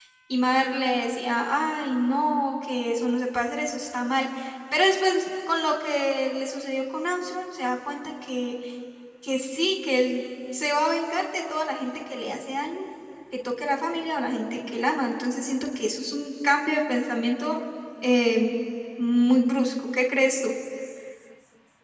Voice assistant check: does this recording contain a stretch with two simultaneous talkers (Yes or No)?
No